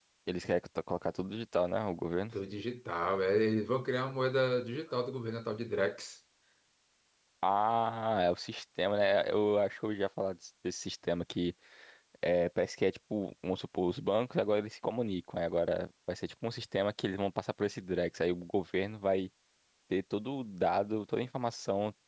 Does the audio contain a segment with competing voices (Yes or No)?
No